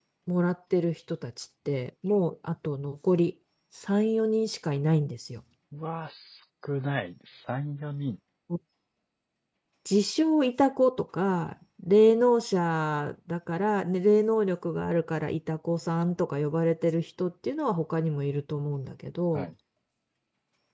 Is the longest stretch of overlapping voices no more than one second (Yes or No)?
Yes